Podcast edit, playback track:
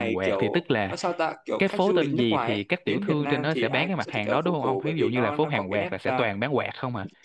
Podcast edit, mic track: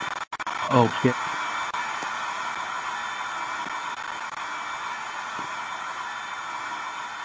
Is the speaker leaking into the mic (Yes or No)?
No